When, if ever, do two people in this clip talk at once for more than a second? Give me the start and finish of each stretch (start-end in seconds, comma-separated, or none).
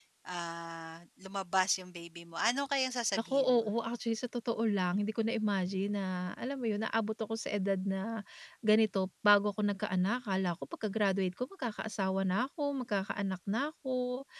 none